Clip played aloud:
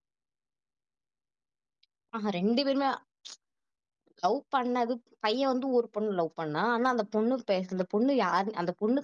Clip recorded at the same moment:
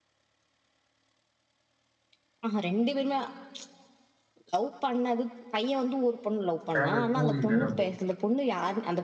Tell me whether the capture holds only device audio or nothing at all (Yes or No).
No